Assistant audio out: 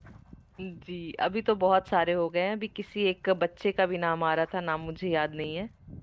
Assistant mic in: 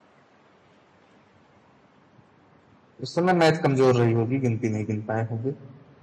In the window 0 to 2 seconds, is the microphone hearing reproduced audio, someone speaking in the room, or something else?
neither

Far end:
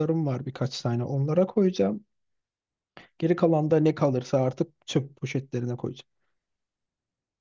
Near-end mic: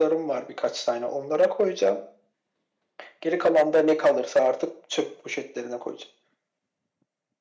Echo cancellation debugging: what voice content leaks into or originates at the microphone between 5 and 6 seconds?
echo only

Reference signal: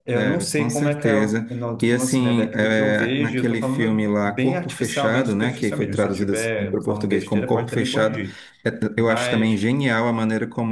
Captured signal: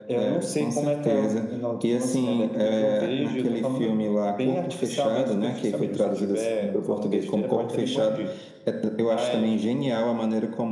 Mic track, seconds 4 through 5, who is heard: echo only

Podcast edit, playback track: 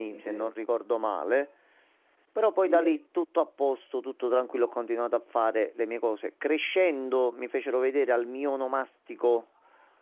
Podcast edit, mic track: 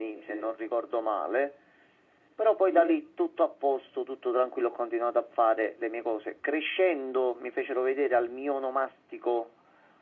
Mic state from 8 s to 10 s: echo only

